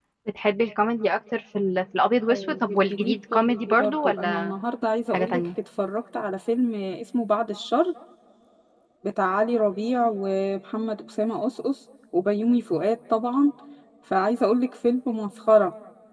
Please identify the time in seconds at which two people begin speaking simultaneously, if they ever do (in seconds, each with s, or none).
2.3 s